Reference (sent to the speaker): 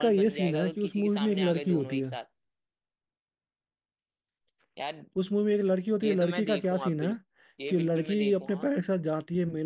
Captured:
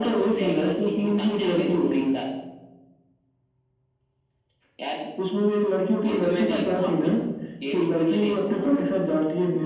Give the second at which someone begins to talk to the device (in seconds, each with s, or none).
none